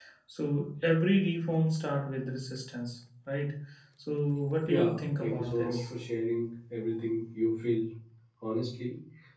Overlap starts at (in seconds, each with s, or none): 4.6 s